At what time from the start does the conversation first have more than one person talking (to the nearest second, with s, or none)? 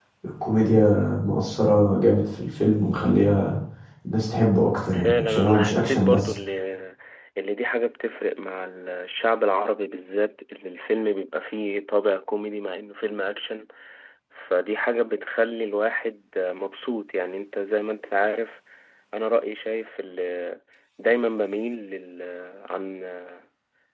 5 s